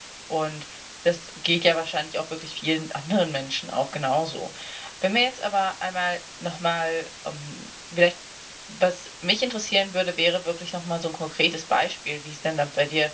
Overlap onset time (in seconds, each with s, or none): none